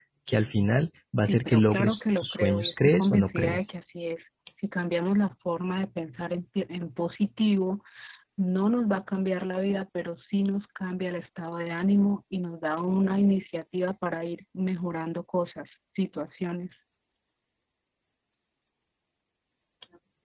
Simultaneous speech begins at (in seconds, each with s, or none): 1.2 s